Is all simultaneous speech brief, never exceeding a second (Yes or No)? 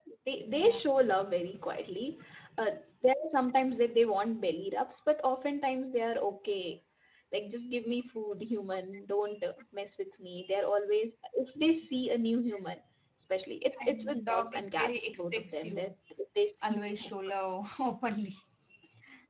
No